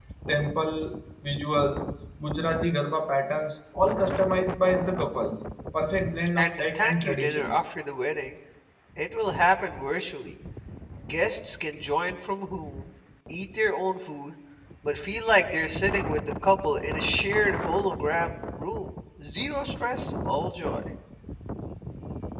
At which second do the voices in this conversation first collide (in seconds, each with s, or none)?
6.4 s